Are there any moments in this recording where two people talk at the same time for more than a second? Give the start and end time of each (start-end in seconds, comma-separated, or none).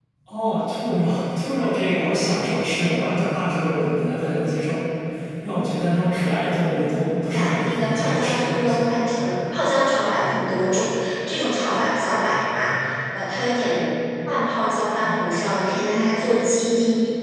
7.2-8.8